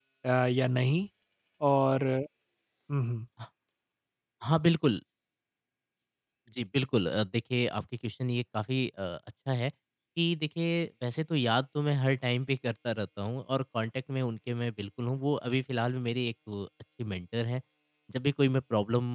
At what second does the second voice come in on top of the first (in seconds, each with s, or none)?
none